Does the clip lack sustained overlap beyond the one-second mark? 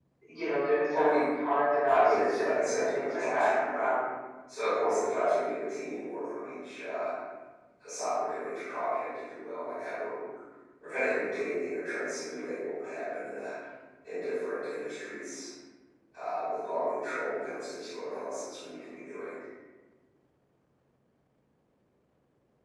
No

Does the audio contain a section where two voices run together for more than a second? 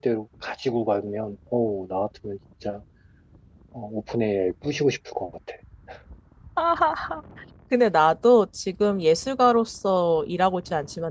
No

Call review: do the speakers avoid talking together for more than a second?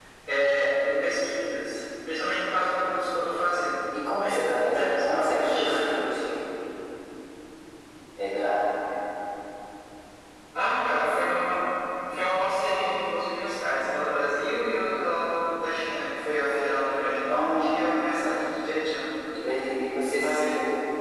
No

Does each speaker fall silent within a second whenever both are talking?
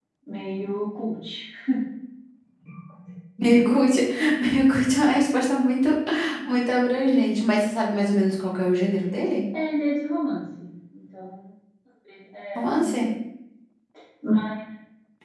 Yes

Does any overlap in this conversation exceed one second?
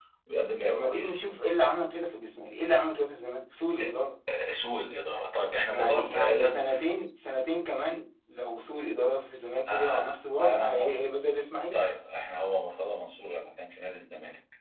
Yes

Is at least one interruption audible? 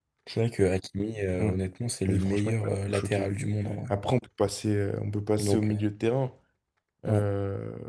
Yes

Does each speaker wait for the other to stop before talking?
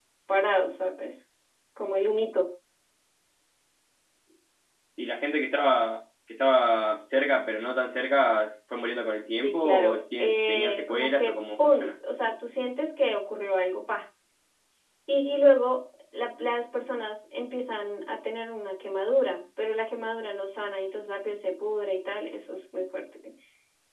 No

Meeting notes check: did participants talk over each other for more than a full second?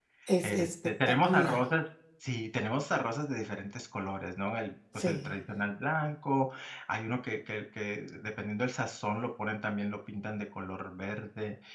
Yes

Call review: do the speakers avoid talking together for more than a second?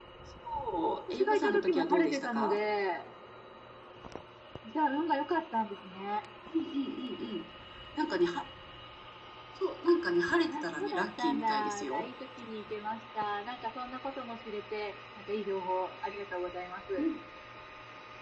No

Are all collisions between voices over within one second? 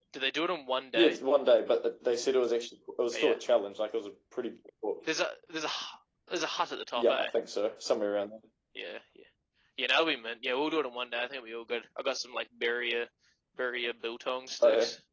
Yes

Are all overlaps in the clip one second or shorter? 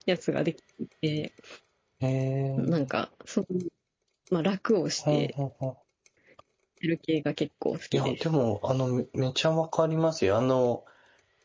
Yes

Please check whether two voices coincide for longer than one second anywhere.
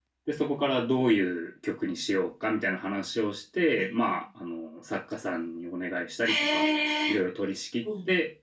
No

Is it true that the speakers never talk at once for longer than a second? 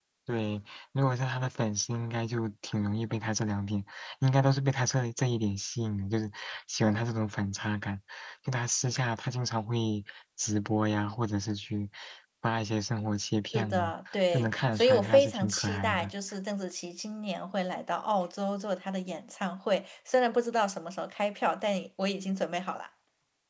No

